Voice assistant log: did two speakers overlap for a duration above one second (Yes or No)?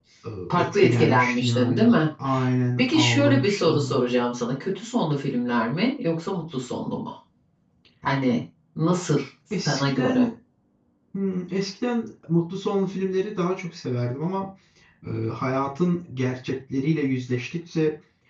Yes